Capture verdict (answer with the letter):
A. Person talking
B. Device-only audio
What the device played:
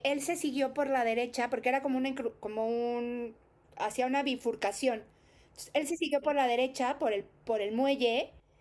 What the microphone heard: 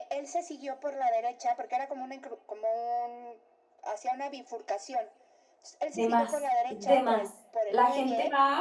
A